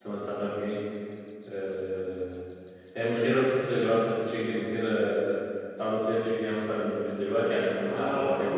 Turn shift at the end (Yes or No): Yes